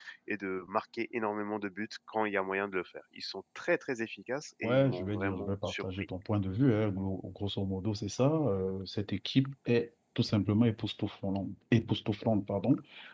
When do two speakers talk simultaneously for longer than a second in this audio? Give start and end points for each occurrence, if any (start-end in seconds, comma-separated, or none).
4.6-6.1